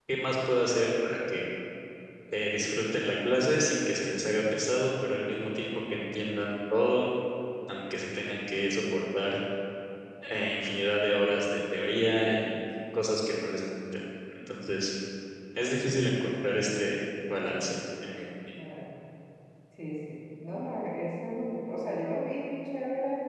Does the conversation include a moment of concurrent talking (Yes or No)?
No